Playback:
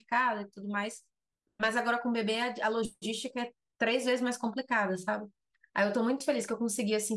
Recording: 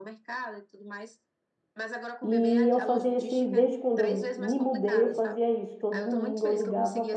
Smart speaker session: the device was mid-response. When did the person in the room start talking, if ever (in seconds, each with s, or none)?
2.2 s